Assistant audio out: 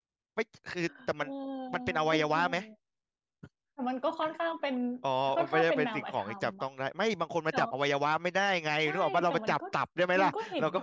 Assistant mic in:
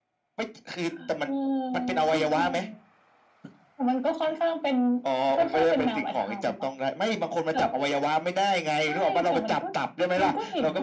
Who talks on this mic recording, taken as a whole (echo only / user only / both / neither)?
echo only